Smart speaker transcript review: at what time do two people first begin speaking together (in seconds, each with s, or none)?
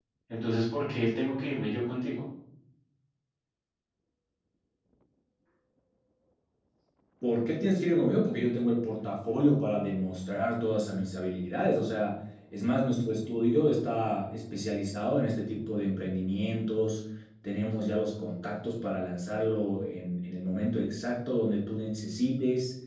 none